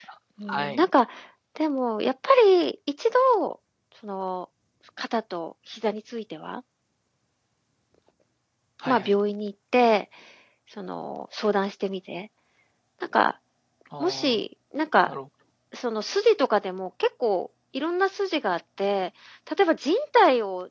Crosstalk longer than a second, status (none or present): none